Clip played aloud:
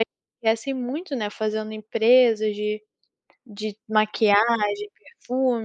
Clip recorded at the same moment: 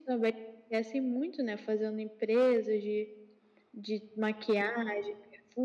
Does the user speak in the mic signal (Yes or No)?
No